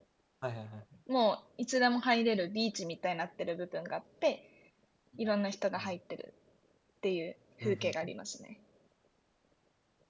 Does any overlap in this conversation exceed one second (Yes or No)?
No